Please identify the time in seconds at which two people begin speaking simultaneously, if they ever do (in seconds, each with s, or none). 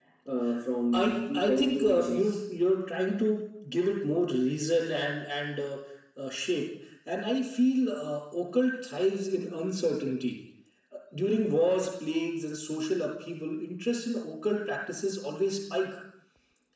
0.9 s